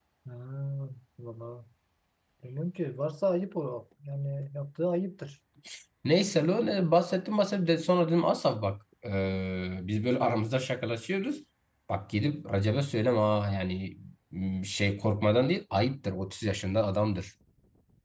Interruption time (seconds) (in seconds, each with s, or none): none